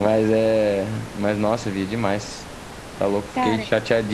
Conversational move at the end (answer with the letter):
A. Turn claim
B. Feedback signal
B